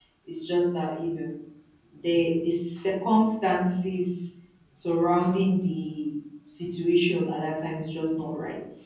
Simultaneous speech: No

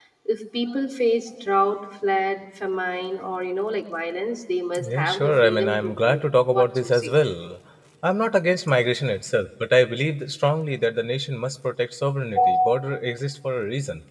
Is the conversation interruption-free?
No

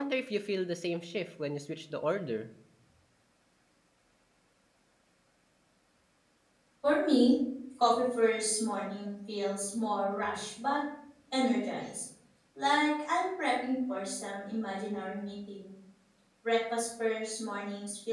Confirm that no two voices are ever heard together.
Yes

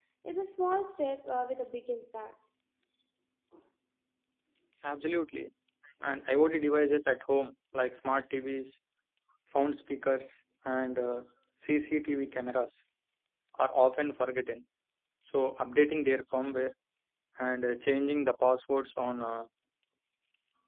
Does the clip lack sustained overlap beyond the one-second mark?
Yes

